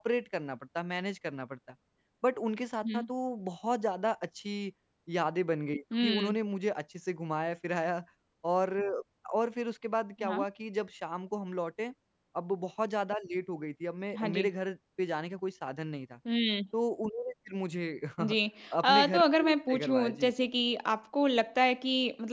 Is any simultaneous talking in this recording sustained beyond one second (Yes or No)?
Yes